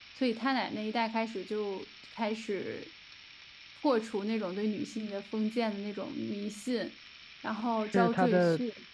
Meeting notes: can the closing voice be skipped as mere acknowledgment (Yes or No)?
No